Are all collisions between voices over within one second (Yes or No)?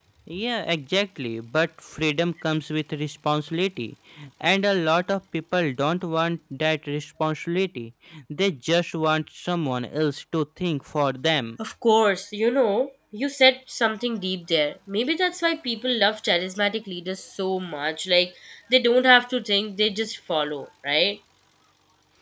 Yes